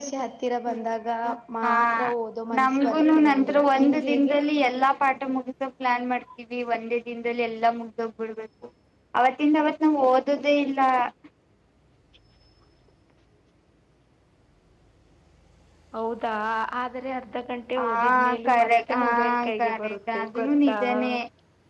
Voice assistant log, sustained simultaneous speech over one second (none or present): present